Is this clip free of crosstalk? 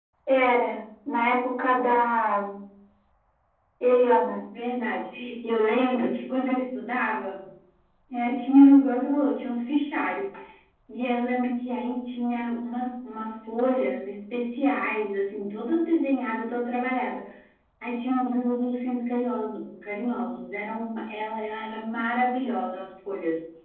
Yes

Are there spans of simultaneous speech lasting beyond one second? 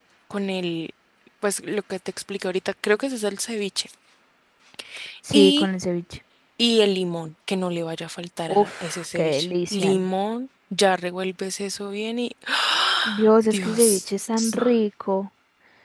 Yes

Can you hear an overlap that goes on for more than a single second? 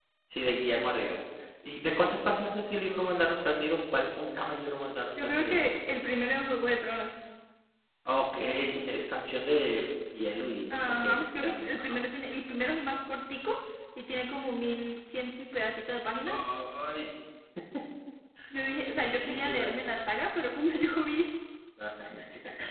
Yes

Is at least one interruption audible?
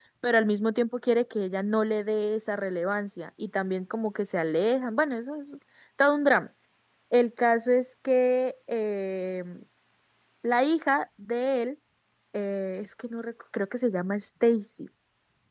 No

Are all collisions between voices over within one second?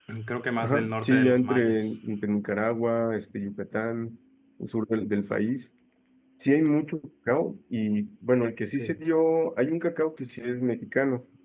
No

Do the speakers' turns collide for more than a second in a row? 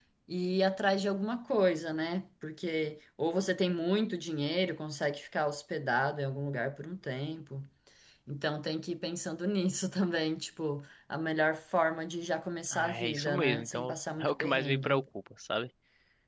Yes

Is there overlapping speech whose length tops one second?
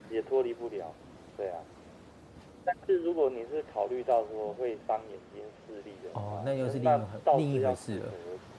Yes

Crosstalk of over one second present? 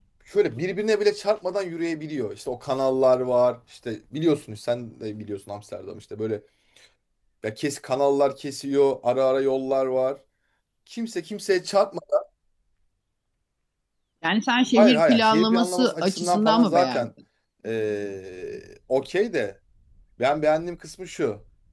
Yes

